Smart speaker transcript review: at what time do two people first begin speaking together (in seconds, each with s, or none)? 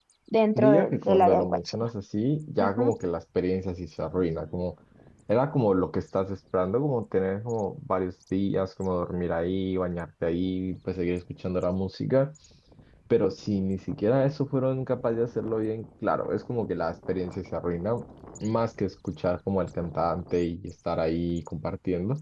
0.6 s